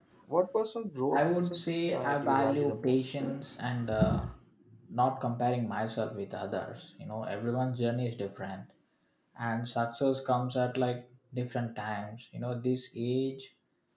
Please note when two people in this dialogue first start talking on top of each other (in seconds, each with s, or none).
1.1 s